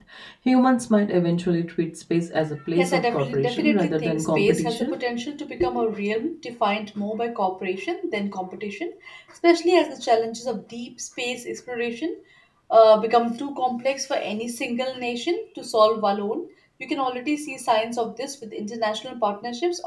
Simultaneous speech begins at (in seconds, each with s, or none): 2.8 s